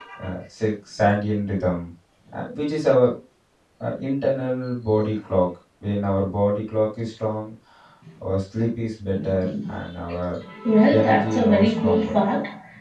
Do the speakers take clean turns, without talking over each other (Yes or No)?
No